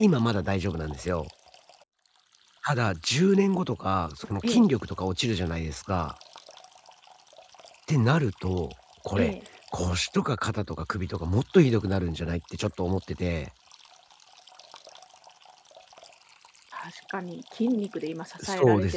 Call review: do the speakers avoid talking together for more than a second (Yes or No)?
Yes